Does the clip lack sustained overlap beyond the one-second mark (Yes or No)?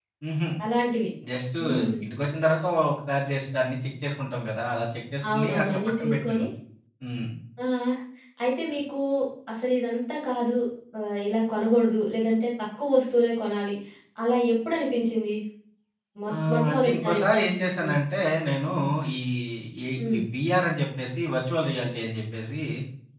No